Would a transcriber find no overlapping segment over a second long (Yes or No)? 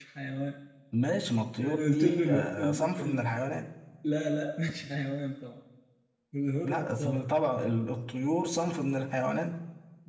No